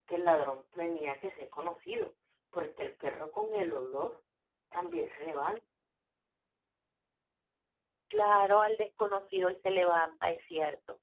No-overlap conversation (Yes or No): Yes